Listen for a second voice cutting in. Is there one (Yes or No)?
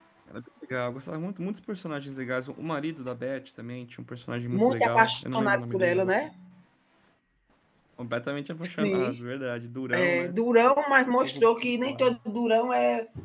Yes